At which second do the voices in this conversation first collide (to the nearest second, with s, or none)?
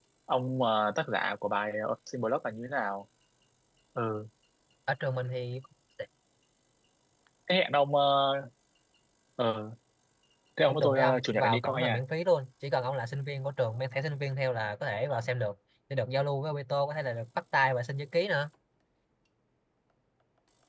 11 s